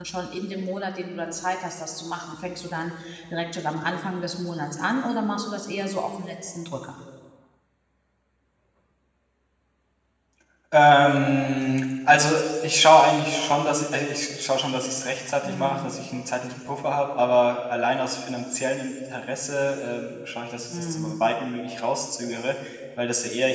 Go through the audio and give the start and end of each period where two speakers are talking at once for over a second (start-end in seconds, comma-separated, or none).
none